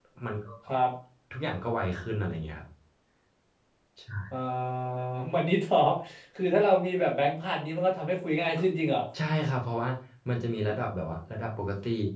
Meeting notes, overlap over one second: none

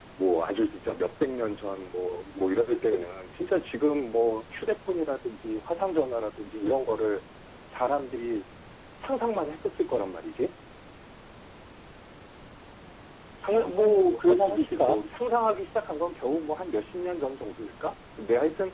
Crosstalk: present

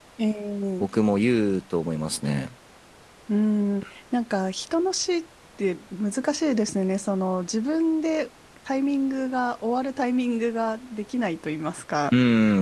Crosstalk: none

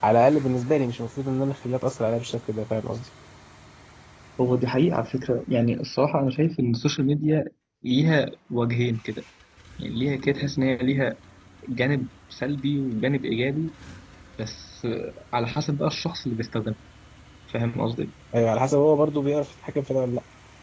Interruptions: none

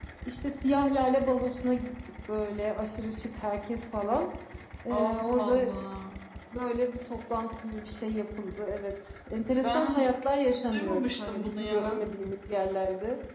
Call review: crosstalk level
present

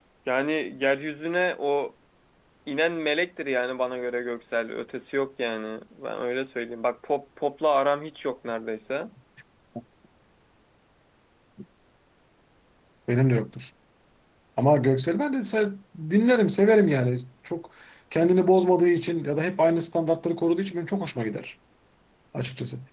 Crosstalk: none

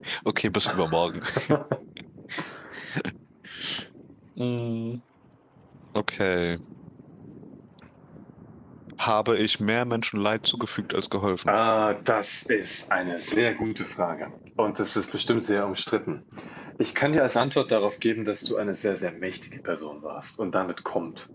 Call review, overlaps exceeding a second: none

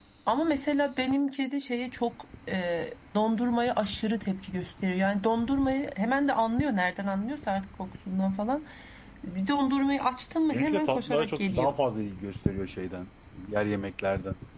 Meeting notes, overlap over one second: present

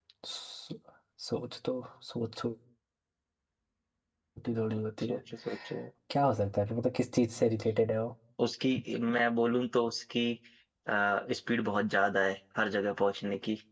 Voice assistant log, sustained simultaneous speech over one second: none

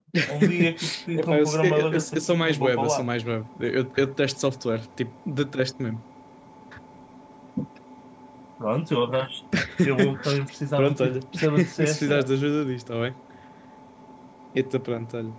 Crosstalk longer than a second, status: present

